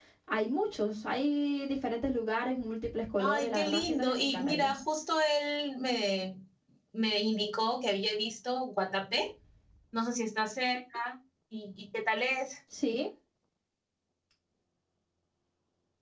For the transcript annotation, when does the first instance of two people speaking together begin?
3 s

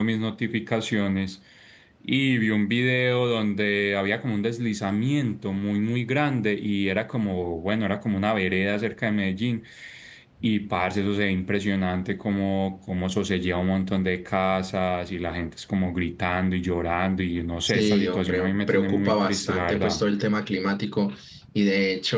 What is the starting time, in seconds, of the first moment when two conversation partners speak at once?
18 s

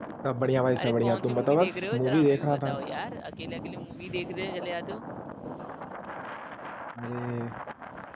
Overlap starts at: 1 s

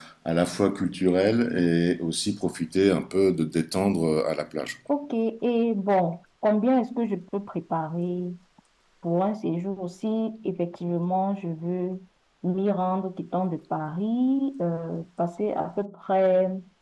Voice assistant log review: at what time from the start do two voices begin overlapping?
none

